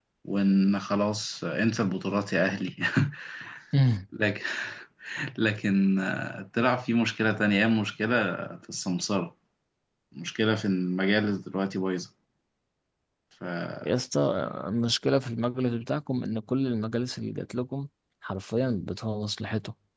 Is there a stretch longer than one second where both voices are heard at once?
No

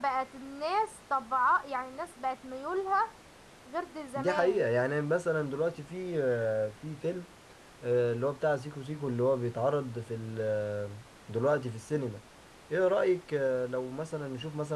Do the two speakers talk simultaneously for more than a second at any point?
No

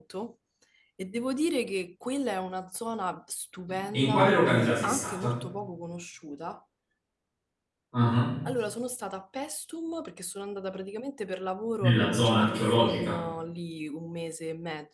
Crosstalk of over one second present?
Yes, from 3.9 s

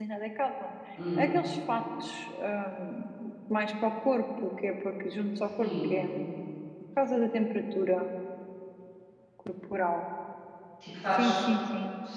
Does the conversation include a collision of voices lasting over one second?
No

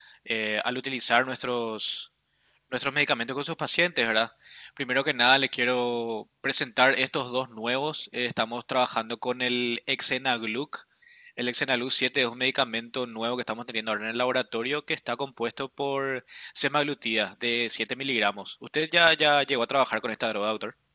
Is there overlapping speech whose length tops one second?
No

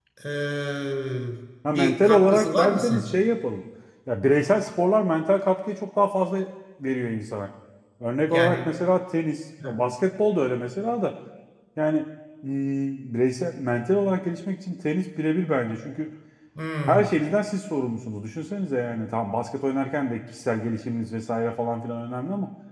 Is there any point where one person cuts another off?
Yes, from 1.7 s

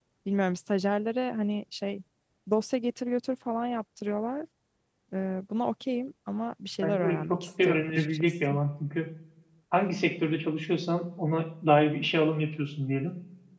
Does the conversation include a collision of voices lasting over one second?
Yes, from 6.8 s

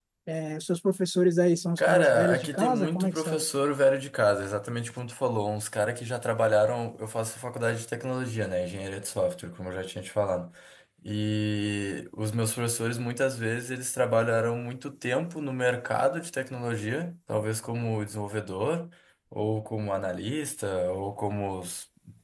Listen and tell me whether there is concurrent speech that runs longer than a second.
Yes, from 1.8 s

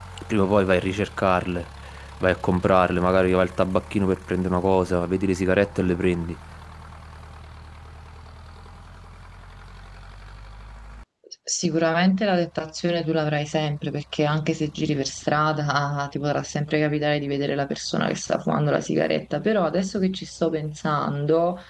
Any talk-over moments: No

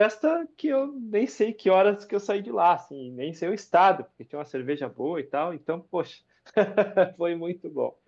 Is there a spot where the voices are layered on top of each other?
No

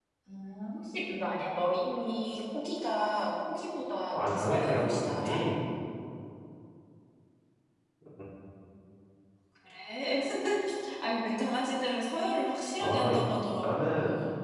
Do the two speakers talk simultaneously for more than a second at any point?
Yes, from 4.1 s

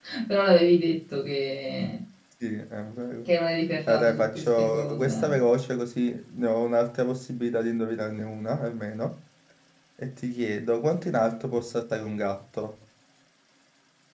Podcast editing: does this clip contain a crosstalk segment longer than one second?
Yes, from 3.9 s

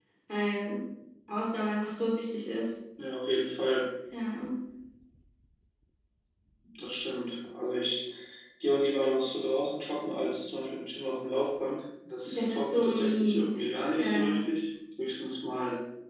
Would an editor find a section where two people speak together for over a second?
Yes, from 12.2 s

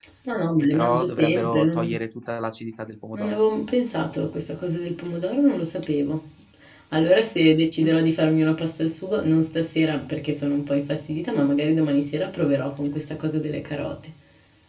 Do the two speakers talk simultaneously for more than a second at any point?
Yes, from 0.6 s

